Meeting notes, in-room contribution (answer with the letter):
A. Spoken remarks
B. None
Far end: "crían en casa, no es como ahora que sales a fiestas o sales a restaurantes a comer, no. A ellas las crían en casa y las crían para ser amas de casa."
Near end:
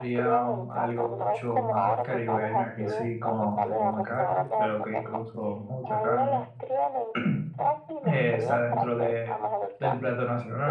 A